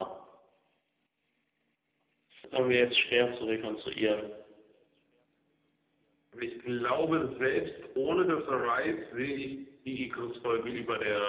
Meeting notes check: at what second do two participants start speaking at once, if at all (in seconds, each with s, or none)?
none